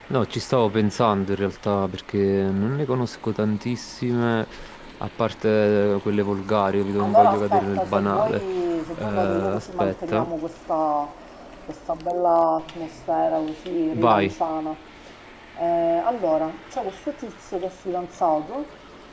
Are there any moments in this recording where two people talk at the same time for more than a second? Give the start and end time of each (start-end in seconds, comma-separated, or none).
7.0-8.4, 9.0-10.3